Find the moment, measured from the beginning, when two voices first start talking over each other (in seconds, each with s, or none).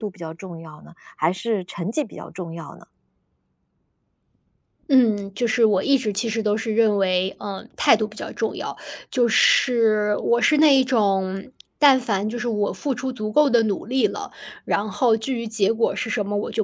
none